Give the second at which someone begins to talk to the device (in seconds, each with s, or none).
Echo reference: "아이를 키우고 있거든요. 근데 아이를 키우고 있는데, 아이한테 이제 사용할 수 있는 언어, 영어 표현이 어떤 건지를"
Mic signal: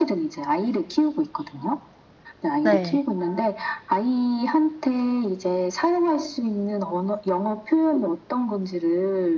2.6 s